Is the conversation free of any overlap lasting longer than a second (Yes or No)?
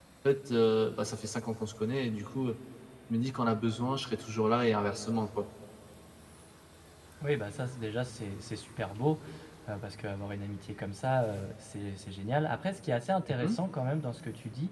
Yes